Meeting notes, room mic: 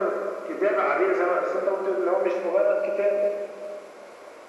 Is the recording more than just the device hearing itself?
No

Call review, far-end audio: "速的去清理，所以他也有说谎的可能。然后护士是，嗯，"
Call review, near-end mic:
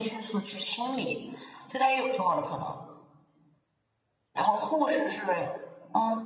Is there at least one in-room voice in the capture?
No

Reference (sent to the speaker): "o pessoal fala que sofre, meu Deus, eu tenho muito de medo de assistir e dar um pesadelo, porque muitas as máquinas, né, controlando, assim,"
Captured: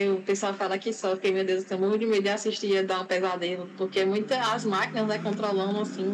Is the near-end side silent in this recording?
Yes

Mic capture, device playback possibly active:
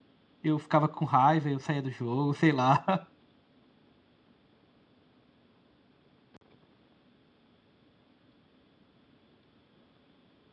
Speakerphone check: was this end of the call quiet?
No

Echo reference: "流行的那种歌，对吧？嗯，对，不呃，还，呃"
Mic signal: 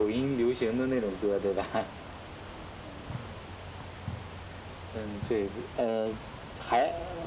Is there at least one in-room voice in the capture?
No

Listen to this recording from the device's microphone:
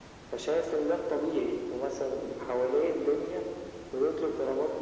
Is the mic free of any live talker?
Yes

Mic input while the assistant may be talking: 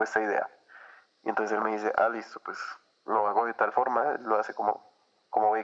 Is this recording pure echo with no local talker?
Yes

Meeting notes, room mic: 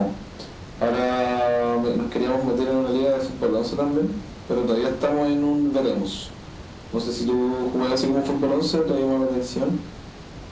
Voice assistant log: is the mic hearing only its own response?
Yes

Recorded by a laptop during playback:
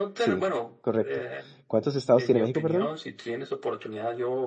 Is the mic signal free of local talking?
No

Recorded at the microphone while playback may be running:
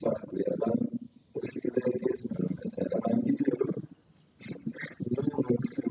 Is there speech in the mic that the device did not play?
No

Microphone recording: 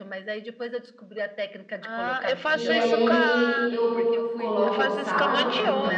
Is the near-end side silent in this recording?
No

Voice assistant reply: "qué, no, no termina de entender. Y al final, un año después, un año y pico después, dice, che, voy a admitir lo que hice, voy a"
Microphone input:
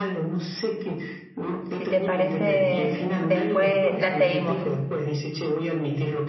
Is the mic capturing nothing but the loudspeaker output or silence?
No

